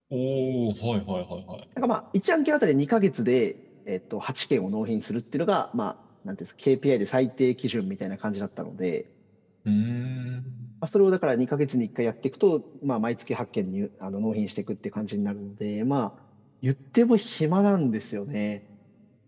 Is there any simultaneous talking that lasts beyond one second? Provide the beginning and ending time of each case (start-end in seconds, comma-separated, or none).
none